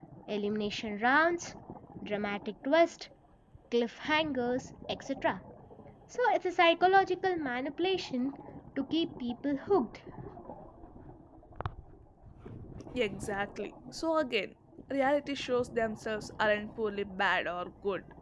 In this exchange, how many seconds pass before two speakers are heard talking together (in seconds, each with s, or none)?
none